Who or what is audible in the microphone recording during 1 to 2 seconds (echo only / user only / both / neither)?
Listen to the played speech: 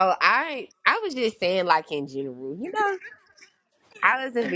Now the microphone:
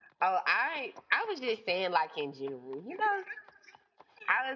echo only